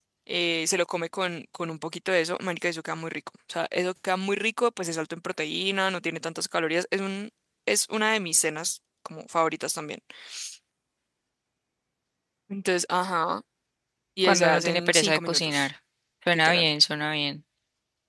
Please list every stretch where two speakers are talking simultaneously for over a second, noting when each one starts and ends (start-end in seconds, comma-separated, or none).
14.2-15.7